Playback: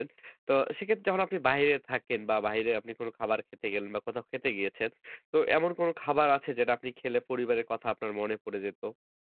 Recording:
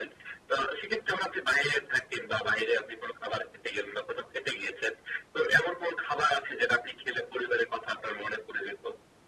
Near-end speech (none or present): none